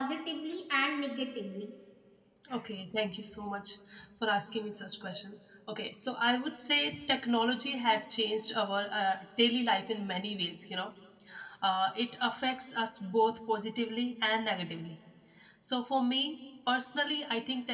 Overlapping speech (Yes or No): No